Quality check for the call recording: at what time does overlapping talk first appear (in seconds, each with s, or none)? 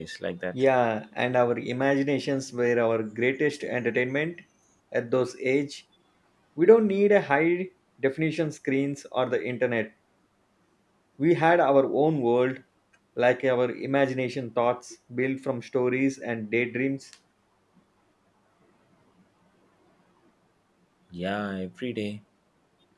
none